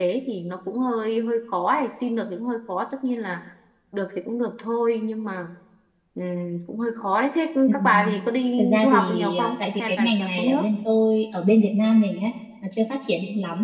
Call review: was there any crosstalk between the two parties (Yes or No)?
Yes